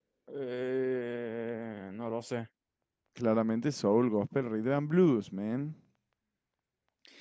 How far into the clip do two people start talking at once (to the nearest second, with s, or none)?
none